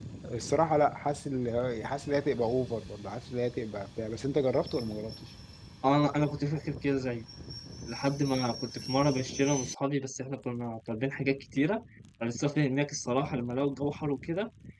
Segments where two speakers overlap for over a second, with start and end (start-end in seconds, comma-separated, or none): none